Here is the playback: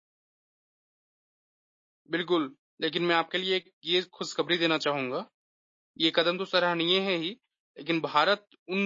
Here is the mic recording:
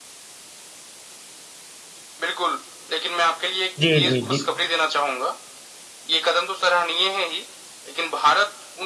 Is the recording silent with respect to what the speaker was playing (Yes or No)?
No